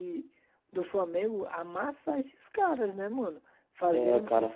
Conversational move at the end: listening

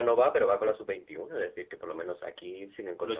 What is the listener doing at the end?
taking over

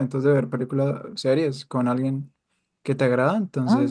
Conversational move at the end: listening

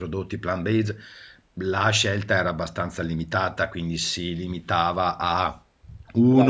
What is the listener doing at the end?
listening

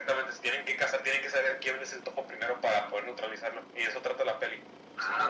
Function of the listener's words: taking over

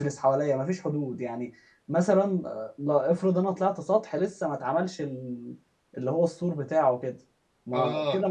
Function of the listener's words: listening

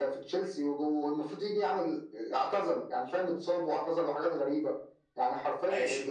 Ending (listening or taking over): taking over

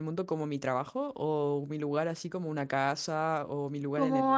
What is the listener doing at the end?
taking over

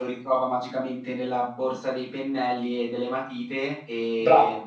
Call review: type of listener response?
taking over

